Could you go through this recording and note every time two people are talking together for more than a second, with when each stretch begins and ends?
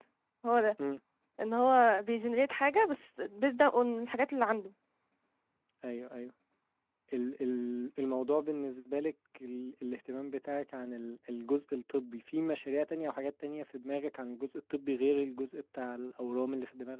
none

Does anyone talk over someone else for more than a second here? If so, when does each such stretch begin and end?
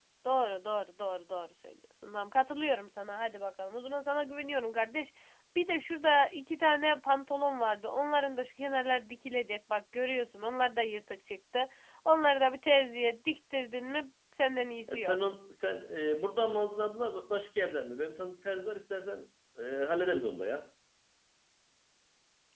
none

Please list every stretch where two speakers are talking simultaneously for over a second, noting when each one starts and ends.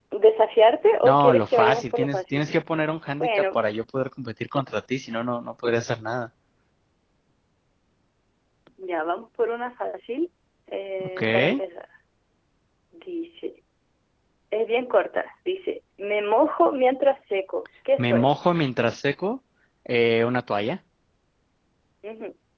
1.0-2.5

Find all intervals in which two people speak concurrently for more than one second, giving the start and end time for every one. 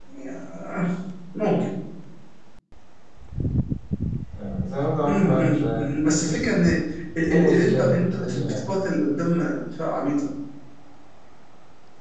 5.0-6.3, 7.3-8.6

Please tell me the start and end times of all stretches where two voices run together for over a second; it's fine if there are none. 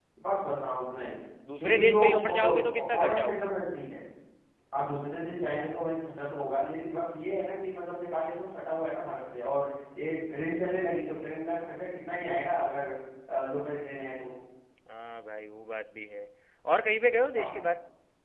1.6-3.5

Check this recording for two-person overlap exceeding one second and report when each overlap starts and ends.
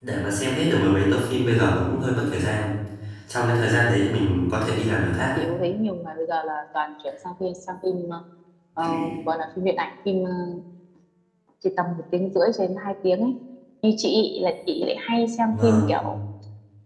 none

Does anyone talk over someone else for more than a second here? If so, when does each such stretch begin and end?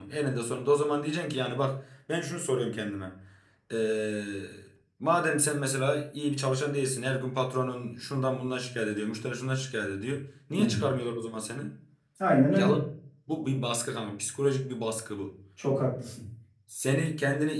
none

